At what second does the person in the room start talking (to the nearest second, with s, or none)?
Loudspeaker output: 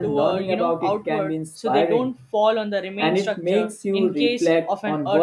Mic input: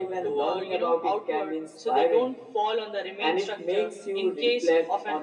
none